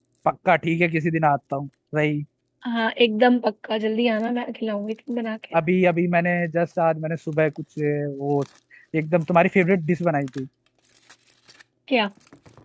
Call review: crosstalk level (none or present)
none